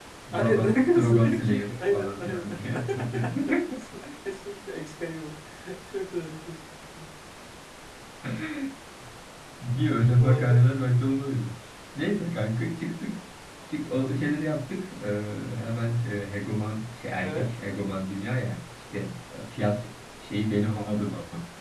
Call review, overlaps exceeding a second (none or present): present